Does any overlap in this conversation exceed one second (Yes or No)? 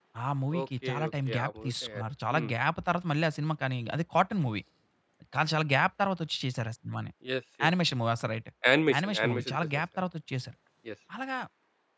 Yes